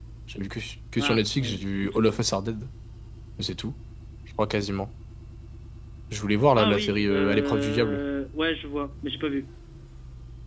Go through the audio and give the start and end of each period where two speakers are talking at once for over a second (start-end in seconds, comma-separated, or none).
1.0-2.2, 6.5-8.0